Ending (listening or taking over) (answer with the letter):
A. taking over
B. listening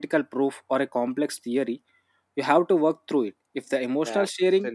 A